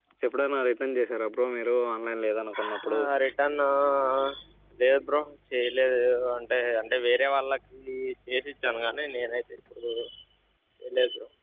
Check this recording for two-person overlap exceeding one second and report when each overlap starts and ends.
none

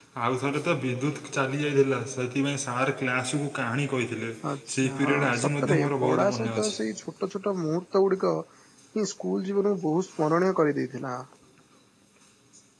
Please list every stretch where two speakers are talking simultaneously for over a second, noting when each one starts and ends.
4.8-6.8

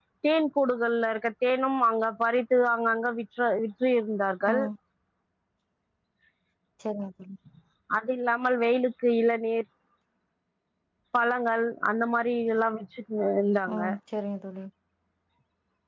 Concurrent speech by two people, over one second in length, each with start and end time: none

